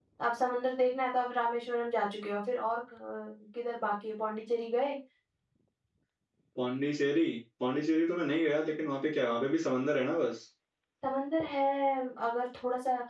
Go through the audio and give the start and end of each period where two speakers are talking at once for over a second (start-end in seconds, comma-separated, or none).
none